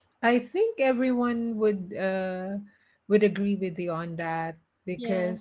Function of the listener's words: listening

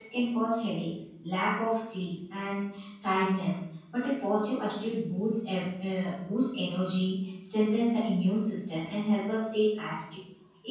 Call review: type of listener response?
listening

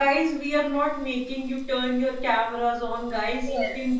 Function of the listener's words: listening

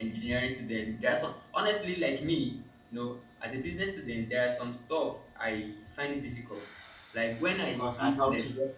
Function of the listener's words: listening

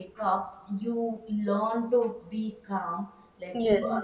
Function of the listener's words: listening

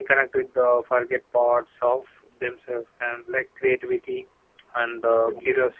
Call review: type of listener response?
listening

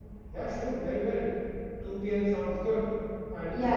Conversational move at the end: taking over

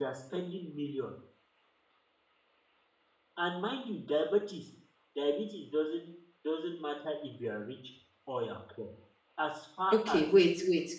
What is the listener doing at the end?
taking over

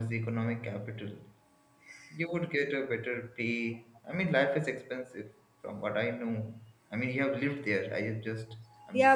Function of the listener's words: taking over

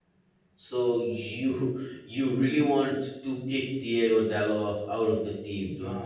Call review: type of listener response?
taking over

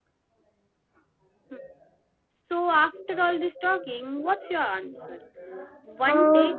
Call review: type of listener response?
listening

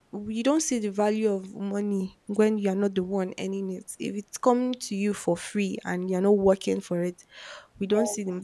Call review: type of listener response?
listening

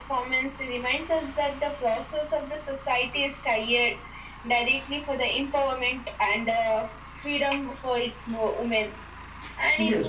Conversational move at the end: taking over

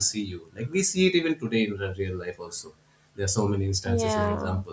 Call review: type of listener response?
listening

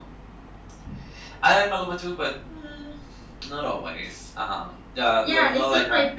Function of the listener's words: taking over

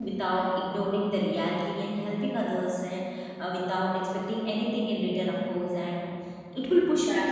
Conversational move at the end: listening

